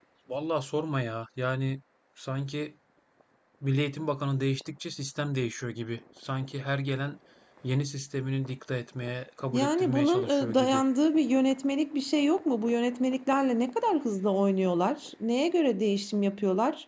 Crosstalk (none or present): present